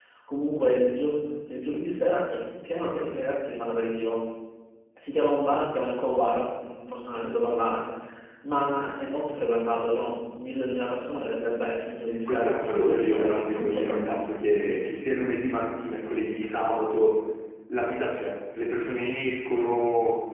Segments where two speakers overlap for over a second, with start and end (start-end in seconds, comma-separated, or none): 12.2-14.2